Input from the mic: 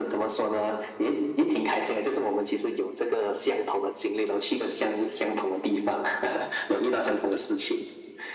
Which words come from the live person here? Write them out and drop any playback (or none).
none